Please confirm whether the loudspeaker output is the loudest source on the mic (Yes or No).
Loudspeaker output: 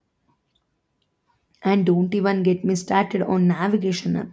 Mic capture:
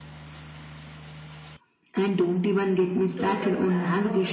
Yes